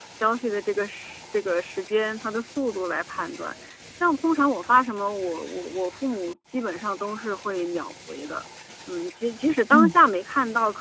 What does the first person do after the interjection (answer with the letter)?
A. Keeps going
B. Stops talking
A